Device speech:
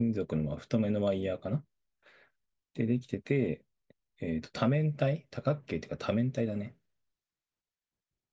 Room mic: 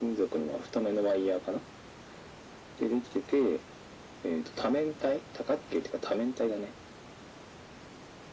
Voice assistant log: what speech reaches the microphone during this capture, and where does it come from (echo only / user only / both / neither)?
echo only